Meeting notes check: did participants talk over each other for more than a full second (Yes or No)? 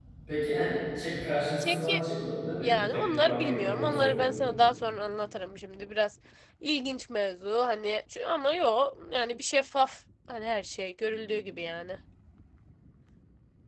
Yes